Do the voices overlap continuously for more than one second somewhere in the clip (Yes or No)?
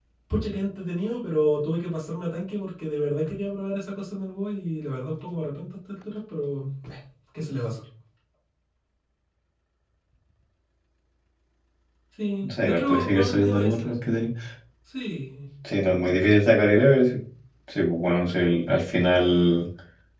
Yes